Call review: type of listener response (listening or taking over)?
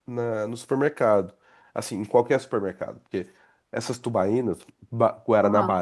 listening